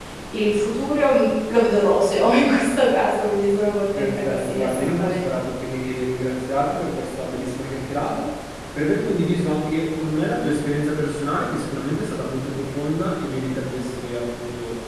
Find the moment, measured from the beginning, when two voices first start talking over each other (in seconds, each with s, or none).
4.0 s